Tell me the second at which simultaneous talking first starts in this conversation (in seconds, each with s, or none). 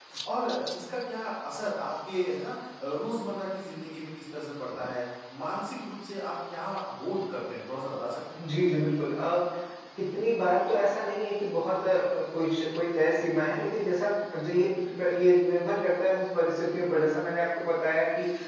none